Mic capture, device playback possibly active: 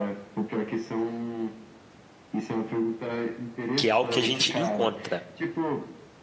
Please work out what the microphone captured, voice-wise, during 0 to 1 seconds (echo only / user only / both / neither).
echo only